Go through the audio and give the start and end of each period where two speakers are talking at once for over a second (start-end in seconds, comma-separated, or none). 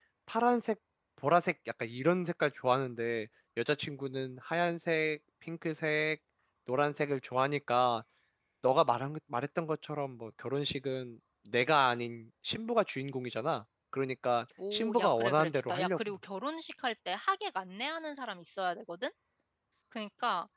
14.7-16.0